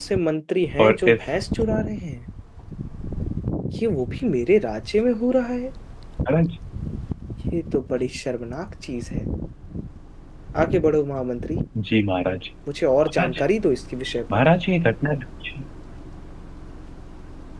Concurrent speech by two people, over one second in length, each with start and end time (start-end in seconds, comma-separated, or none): none